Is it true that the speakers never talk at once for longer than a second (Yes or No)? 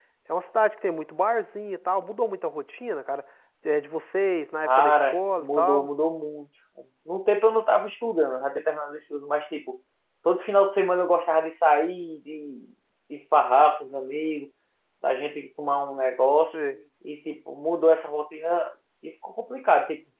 No